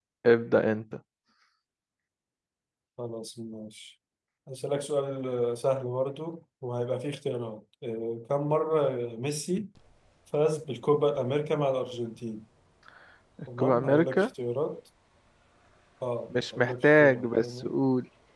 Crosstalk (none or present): present